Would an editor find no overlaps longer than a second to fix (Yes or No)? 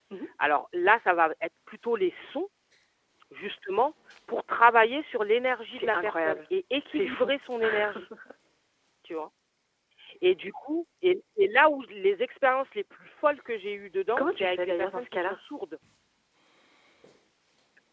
No